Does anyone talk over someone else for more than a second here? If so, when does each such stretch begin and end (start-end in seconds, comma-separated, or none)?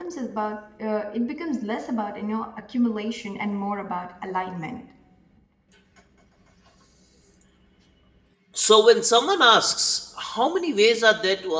none